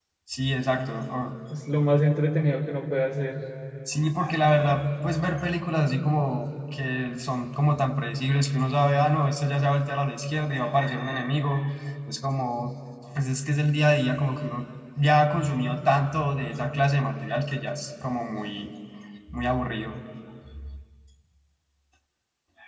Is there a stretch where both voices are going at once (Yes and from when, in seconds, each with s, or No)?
No